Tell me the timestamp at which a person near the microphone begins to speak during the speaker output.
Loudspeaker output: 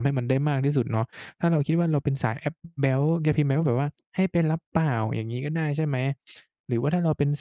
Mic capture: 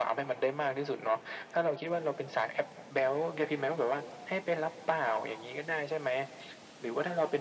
none

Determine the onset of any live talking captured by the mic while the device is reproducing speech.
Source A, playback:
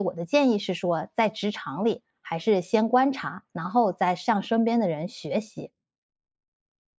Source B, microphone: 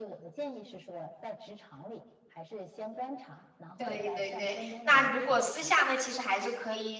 4 s

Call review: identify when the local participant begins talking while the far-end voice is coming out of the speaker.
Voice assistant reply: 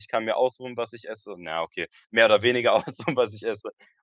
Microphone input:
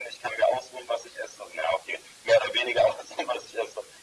none

